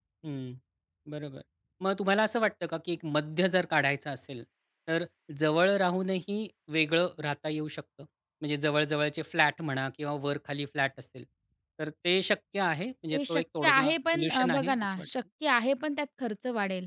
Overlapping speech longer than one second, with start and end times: 13.2-15.1

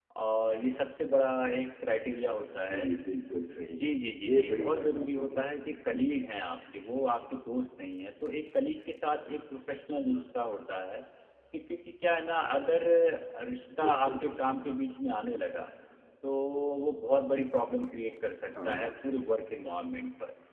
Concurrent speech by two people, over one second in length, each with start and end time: 4.2-6.1

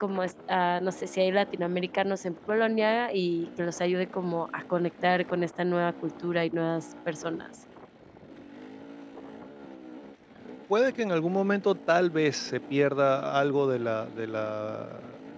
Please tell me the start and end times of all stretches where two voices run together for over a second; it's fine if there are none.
none

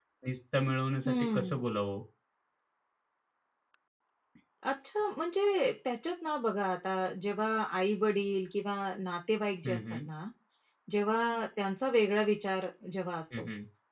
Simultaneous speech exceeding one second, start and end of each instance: none

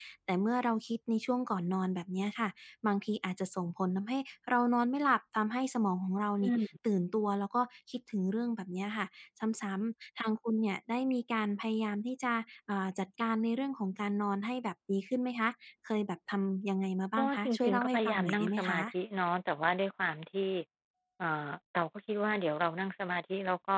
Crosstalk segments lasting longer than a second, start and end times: 17.2-18.9

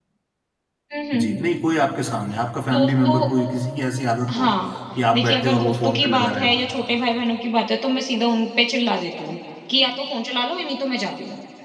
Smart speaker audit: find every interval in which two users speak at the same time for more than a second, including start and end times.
5.1-6.5

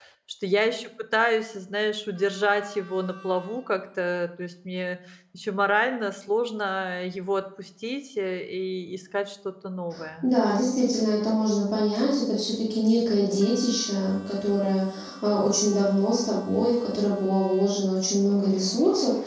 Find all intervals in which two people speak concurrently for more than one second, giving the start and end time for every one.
none

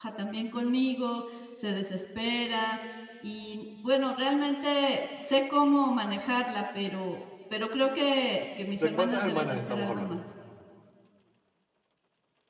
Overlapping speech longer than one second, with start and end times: 8.7-10.1

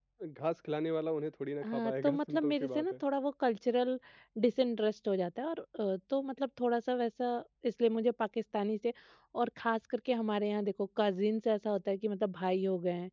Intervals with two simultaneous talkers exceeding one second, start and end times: 1.6-2.9

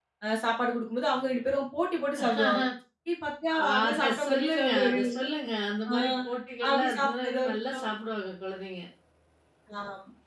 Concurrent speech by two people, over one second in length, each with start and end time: 3.7-5.3, 6.7-7.9

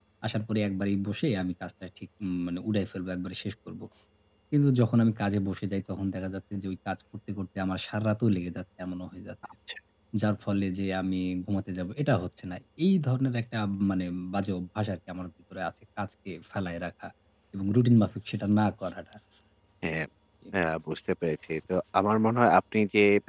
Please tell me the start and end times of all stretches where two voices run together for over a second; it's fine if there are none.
none

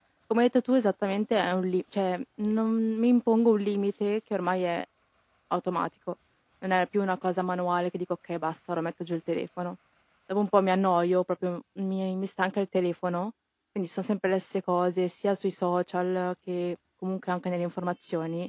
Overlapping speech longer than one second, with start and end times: none

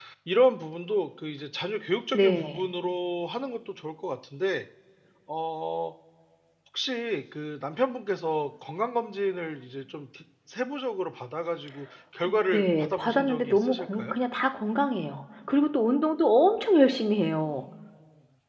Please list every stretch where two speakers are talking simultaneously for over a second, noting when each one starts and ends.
12.5-14.2

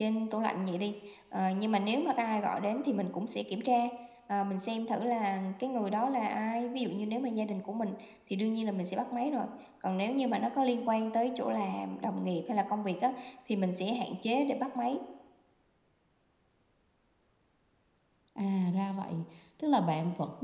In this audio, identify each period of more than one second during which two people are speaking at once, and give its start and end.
none

